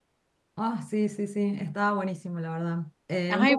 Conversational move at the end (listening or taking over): listening